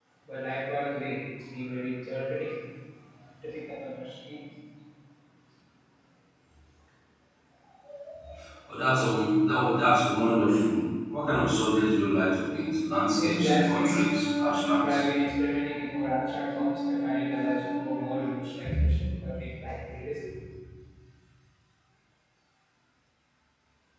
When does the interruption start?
13.2 s

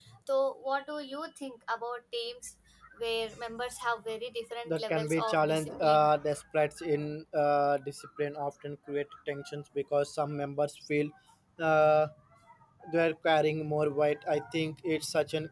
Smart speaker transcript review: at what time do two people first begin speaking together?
4.7 s

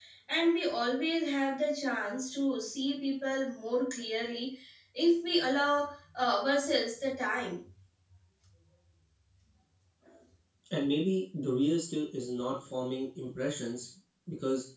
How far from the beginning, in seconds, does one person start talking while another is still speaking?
none

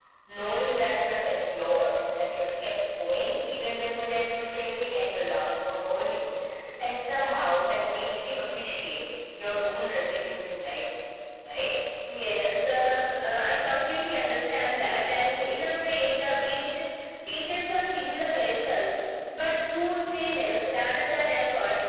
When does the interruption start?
none

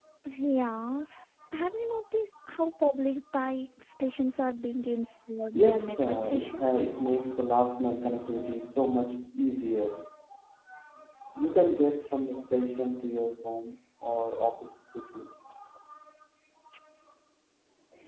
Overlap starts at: 5.5 s

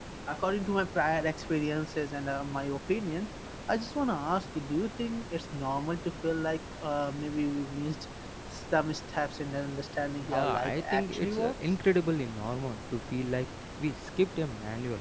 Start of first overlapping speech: 10.2 s

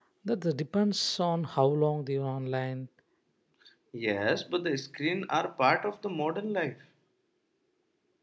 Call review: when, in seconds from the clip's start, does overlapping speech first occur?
none

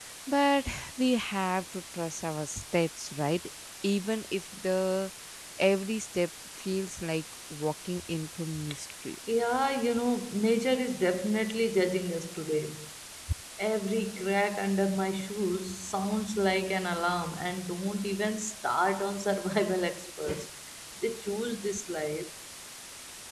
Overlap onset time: none

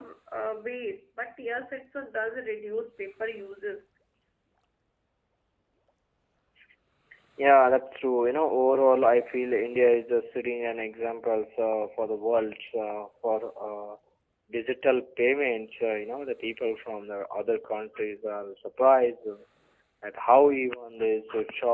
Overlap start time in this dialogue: none

